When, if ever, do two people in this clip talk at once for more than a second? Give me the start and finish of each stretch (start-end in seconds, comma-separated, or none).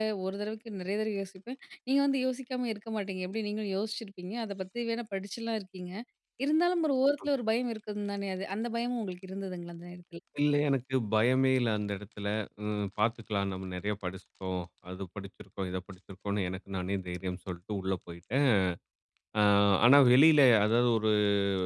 none